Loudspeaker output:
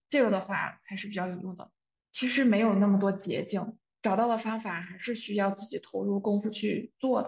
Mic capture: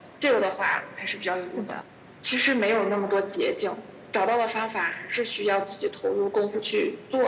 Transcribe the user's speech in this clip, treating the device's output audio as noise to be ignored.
是的，

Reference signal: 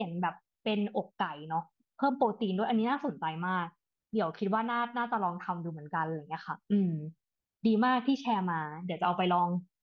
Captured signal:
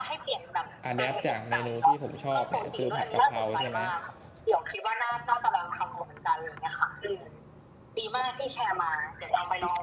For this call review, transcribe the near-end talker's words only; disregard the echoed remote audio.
อะแดปจากเมนูที่ผมชอบเนี่ยคือผัดกะเพราใช่ไหม

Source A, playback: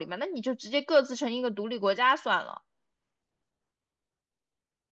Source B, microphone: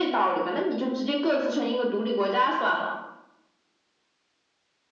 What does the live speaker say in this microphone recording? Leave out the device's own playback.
none

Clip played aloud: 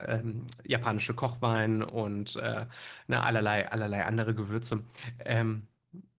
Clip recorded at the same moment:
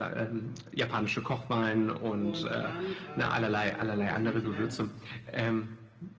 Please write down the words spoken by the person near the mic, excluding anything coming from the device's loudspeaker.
und dann äh, gibst du Kokosmilch hinein

